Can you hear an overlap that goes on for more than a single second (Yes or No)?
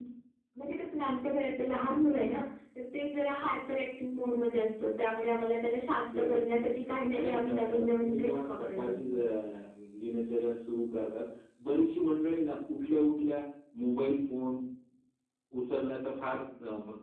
Yes